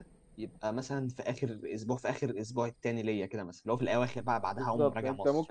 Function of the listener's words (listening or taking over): taking over